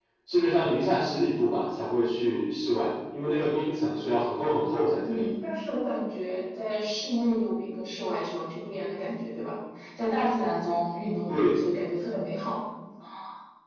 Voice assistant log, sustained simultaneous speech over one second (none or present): none